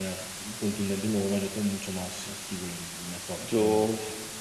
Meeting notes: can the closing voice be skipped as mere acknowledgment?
No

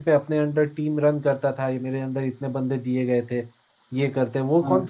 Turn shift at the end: No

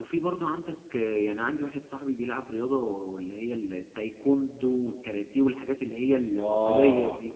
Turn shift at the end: Yes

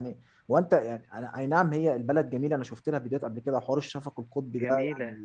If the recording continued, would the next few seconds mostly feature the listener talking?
No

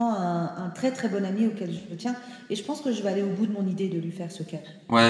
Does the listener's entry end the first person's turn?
Yes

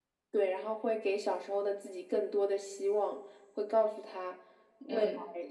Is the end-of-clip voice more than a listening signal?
No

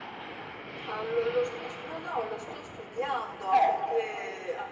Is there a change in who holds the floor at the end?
No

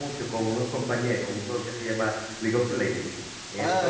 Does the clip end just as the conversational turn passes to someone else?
Yes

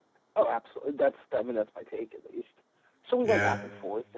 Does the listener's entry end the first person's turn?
No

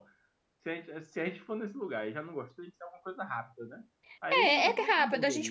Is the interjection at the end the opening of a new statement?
Yes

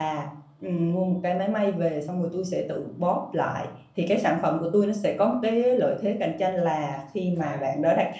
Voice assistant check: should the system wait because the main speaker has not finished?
Yes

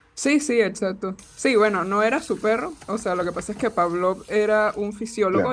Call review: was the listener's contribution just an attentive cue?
Yes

